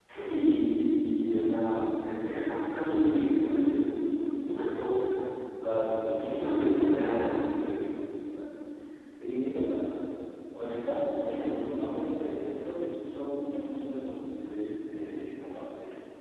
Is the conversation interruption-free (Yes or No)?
No